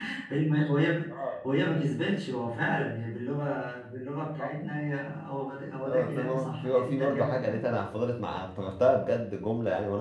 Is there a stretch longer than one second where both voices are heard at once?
Yes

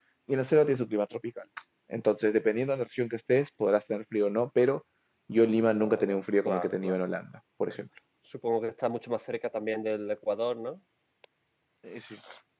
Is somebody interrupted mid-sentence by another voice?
Yes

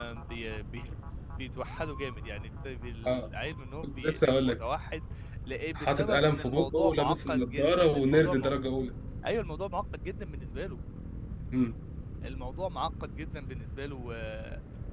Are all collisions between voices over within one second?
No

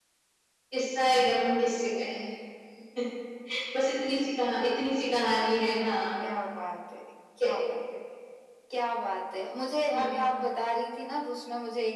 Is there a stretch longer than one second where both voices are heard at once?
No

